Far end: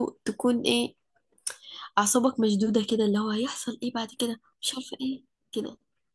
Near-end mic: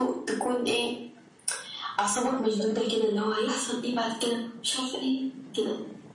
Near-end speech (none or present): present